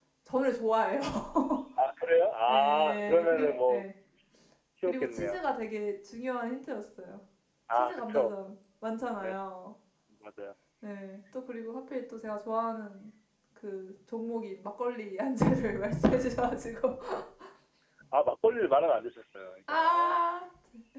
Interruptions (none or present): present